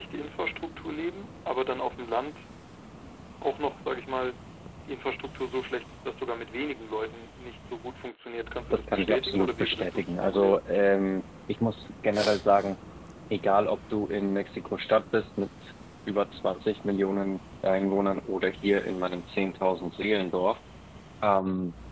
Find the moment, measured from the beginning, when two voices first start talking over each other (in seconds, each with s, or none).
8.7 s